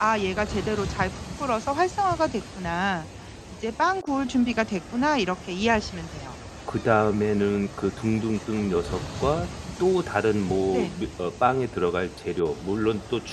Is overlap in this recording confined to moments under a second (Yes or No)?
Yes